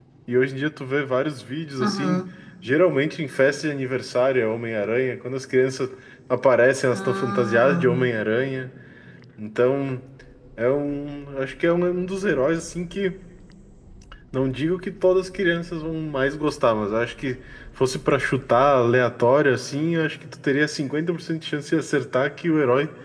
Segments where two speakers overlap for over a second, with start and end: 6.9-8.1

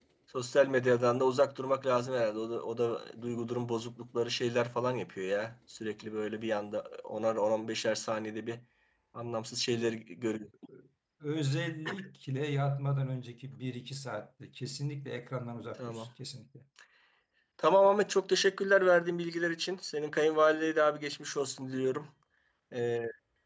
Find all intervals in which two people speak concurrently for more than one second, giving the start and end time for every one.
none

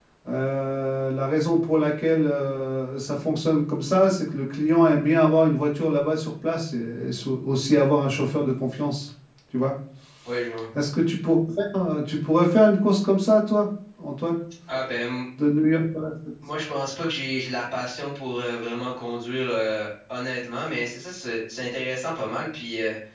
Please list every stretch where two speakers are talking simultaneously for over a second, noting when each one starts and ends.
none

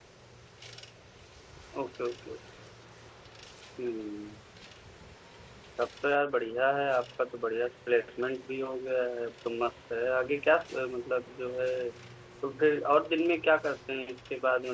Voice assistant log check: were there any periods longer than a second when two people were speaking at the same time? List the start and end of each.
none

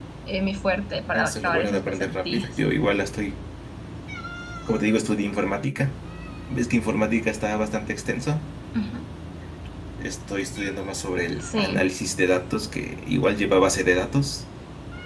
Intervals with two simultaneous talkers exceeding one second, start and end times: 1.1-2.6

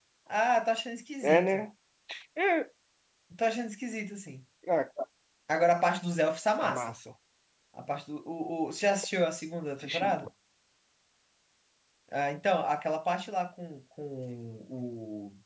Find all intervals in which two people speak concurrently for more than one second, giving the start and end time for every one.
none

